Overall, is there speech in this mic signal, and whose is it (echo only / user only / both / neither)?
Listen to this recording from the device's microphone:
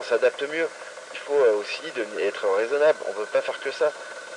echo only